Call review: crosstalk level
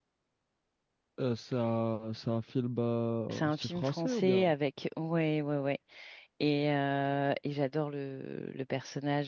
present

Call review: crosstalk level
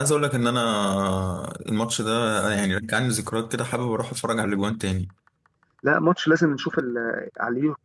none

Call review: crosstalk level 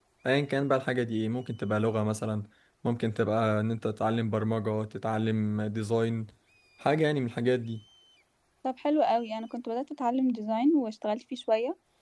none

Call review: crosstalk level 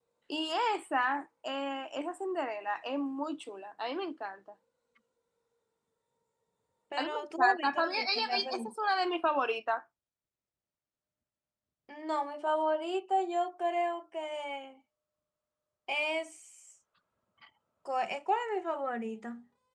present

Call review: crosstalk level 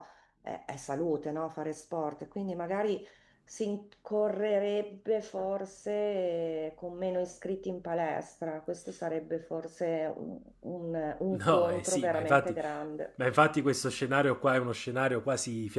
present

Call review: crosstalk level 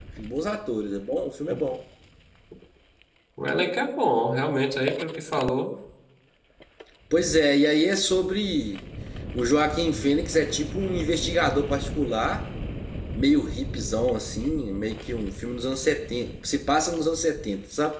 none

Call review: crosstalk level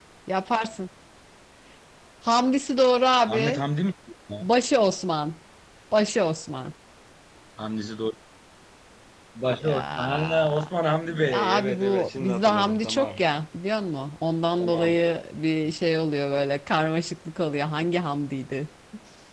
present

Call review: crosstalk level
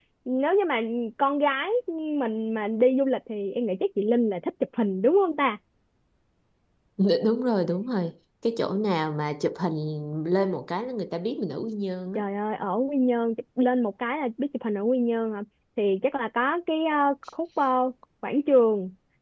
none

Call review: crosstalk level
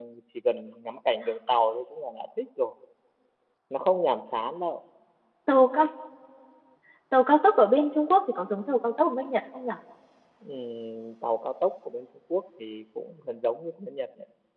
none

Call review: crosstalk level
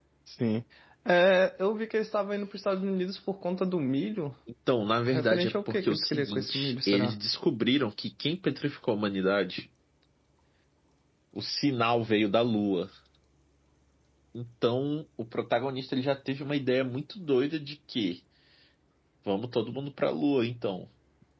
present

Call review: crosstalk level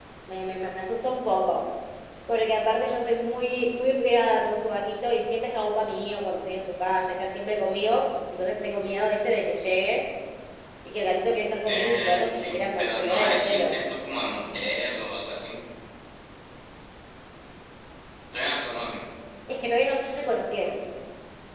present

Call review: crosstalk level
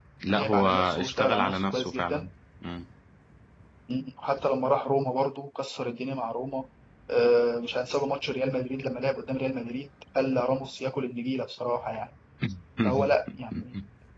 present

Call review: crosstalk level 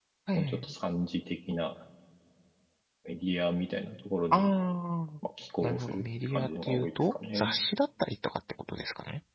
present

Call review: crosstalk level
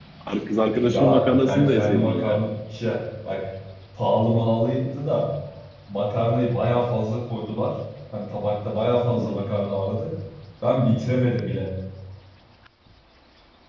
present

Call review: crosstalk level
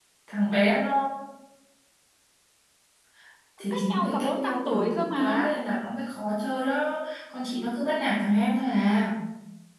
present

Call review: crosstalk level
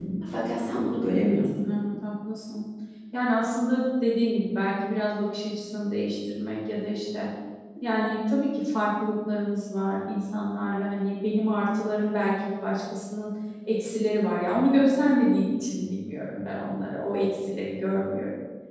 none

